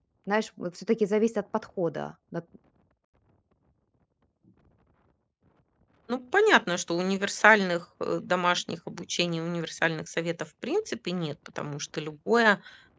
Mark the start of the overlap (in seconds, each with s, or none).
none